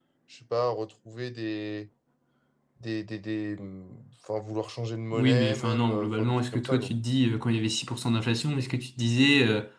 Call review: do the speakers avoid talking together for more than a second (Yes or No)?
No